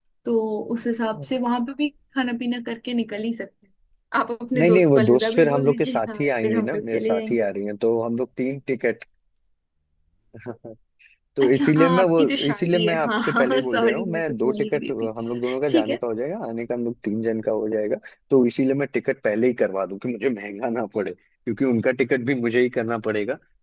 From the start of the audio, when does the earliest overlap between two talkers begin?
5 s

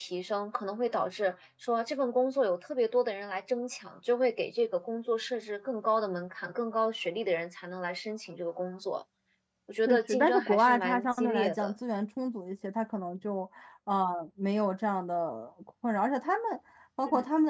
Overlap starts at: 10 s

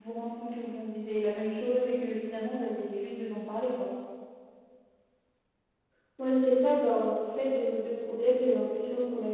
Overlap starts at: none

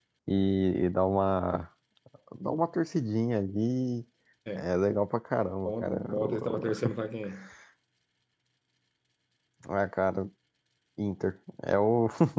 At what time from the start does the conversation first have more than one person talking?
6 s

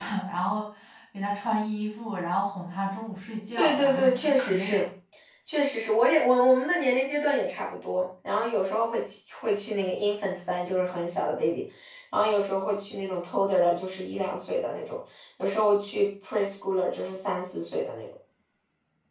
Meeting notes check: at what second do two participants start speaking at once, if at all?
4 s

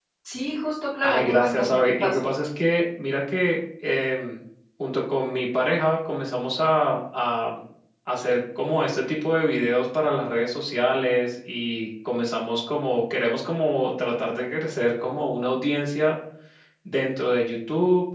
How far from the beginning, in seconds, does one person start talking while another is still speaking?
1 s

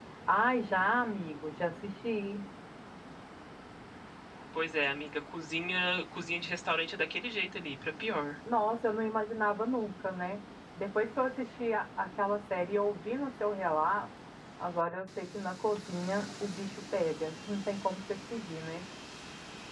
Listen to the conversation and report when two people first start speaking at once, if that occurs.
none

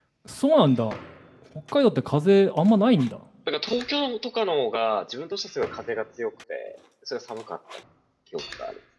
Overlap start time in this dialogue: none

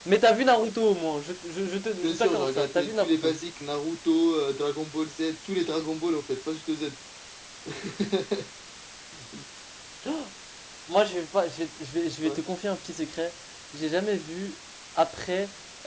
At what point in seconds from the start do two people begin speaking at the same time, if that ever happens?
2 s

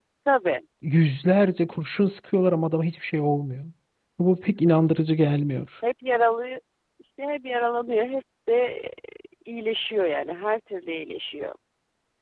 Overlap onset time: none

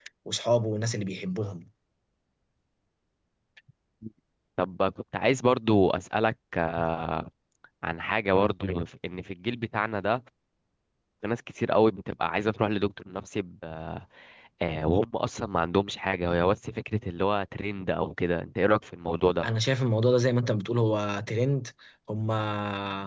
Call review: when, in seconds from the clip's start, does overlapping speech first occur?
none

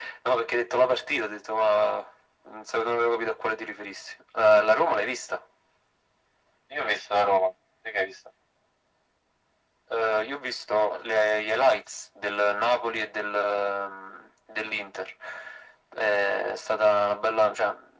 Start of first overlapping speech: none

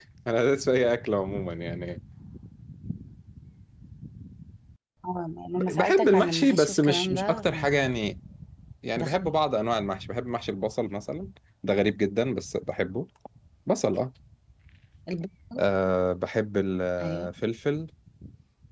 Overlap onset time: 6 s

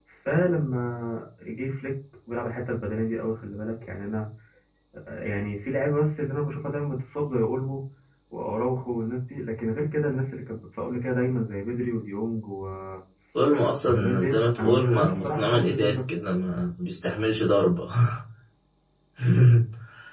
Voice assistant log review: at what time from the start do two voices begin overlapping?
14 s

